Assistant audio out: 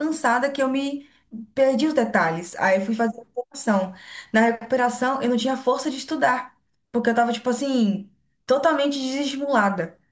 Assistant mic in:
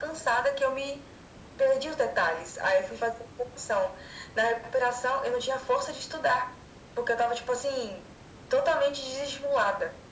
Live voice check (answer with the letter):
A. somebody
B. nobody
B